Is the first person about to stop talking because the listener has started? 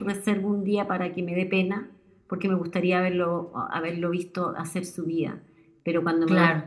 No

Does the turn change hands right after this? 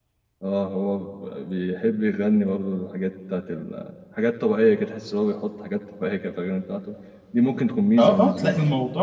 Yes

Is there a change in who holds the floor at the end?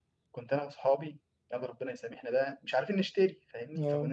No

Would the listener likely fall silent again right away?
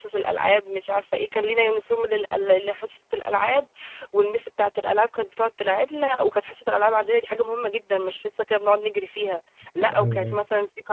Yes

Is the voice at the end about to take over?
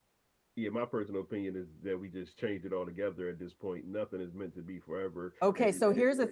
Yes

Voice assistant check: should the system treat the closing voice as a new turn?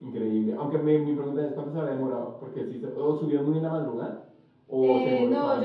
Yes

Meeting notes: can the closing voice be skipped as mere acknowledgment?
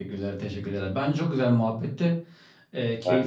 Yes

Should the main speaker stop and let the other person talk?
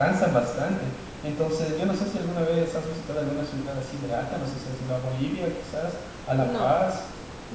Yes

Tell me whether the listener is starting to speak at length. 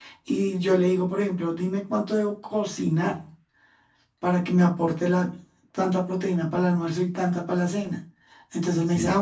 No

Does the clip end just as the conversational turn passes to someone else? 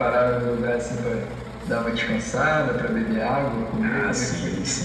Yes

